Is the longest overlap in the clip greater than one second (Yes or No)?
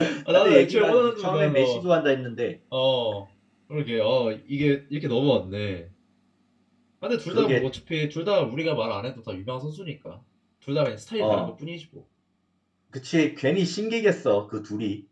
Yes